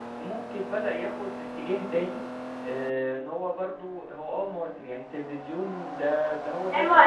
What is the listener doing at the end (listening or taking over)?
taking over